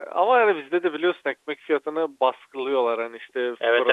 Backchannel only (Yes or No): No